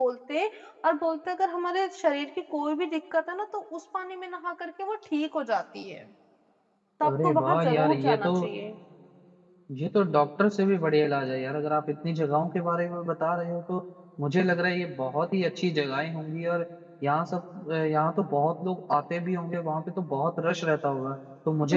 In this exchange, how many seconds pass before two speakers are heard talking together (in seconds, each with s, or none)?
7.0 s